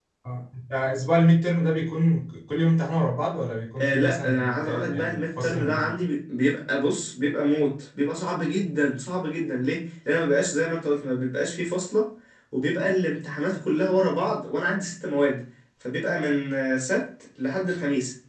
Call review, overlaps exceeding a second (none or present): present